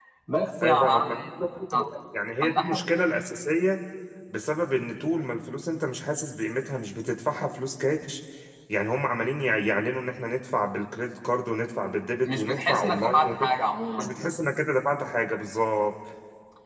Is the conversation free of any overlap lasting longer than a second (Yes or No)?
No